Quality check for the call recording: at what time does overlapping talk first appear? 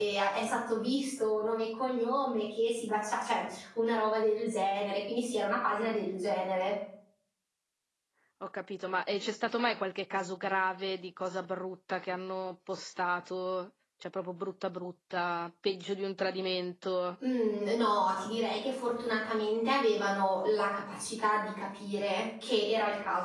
none

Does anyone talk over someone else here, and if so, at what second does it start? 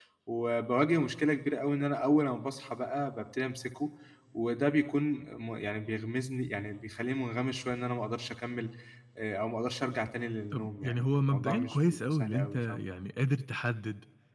10.5 s

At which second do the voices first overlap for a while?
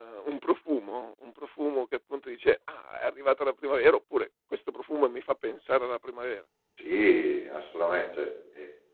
none

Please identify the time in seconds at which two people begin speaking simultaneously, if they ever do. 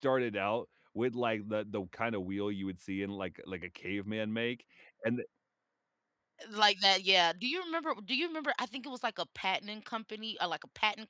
none

